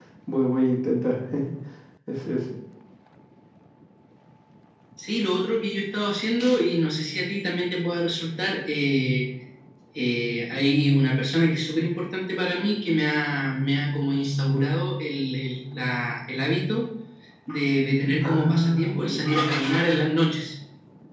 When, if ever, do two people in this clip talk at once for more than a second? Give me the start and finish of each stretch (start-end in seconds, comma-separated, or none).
18.2-19.4